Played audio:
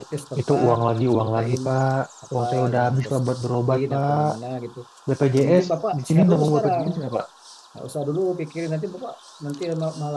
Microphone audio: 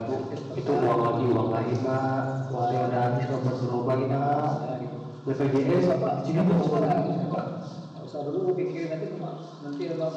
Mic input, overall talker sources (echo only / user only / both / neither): echo only